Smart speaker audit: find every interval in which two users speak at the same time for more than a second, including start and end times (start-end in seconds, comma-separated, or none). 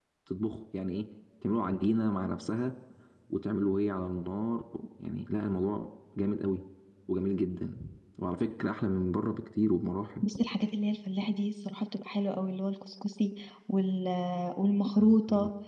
none